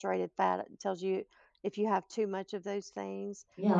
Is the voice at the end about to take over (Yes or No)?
Yes